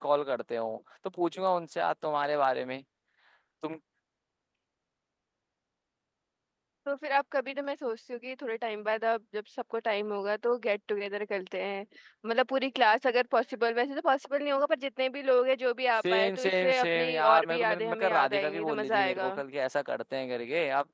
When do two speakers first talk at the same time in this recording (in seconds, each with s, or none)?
16.0 s